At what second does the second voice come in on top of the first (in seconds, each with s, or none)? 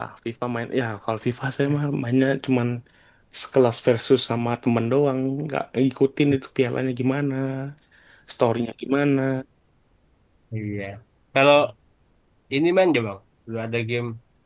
none